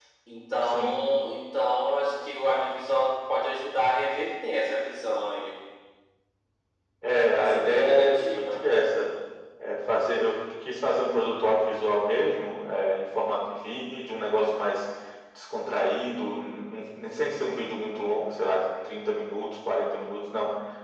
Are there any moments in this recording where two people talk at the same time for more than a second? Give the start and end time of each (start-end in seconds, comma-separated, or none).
7.4-8.7